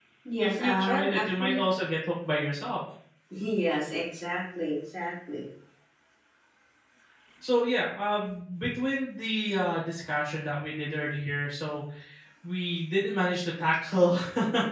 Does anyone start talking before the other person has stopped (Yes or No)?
Yes